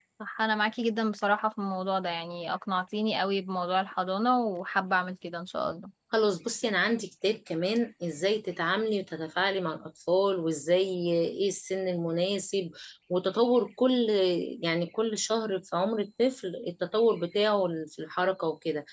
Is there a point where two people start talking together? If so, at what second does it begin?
none

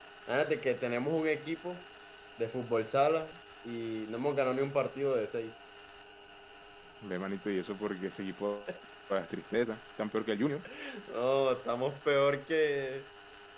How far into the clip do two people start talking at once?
none

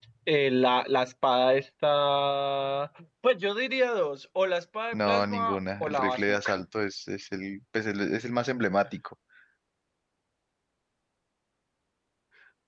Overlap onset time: 4.9 s

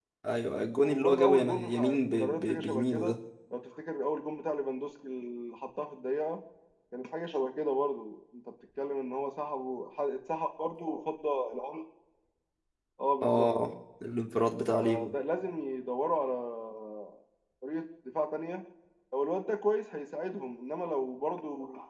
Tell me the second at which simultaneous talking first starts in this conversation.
0.8 s

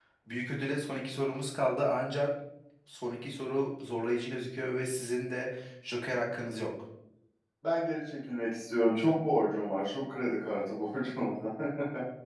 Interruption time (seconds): none

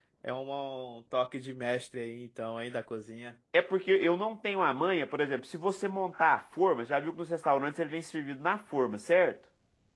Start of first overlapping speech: none

